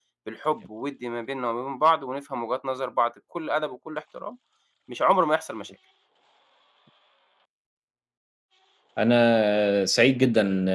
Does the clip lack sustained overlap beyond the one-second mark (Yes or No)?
Yes